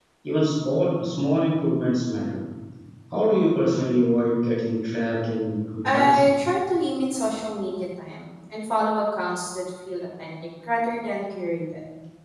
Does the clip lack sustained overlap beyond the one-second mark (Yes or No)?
Yes